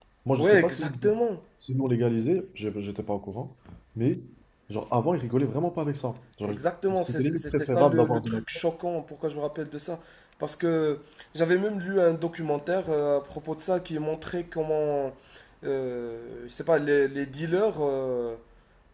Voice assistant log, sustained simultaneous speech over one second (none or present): present